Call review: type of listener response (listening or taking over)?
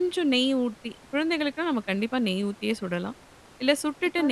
listening